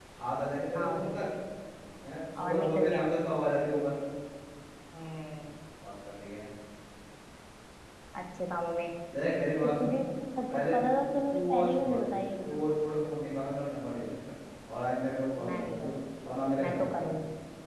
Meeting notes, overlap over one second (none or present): present